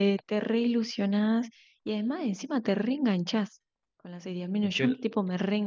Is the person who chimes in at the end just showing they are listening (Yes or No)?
Yes